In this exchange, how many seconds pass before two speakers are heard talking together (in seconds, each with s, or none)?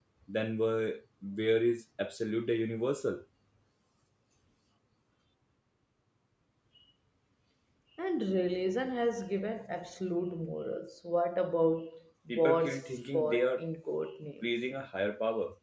12.3 s